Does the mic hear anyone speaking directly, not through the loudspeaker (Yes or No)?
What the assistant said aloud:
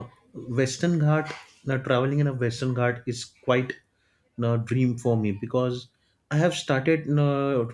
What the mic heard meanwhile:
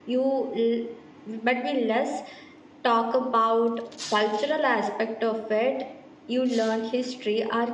Yes